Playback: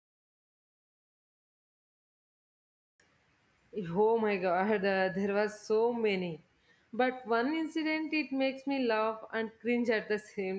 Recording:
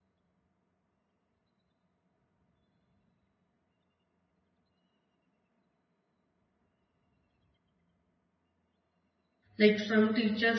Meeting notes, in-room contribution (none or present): present